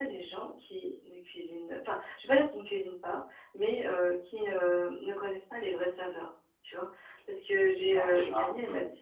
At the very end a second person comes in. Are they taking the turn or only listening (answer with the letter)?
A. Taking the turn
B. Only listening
B